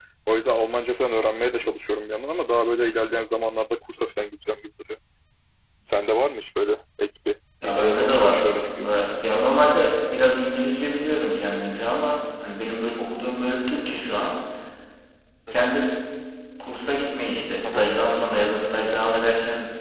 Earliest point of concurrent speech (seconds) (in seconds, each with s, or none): 7.6 s